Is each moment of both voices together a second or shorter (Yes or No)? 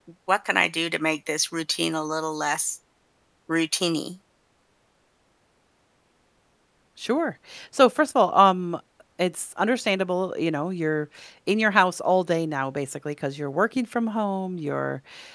Yes